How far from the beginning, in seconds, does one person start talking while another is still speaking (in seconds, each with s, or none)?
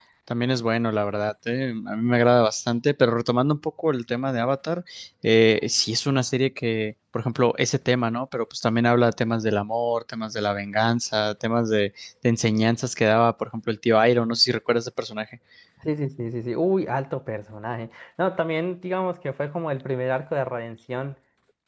none